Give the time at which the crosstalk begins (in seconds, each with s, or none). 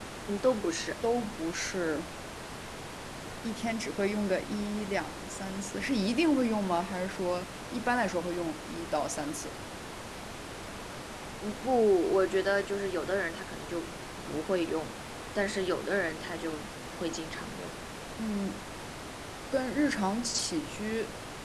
none